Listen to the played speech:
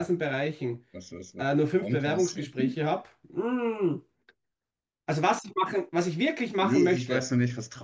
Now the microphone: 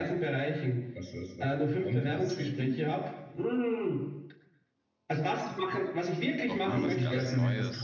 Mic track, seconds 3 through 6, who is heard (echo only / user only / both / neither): echo only